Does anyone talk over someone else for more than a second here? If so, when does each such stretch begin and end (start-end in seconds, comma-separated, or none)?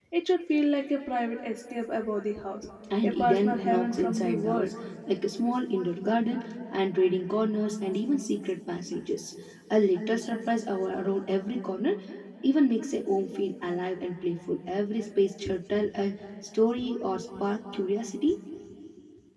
3.0-4.7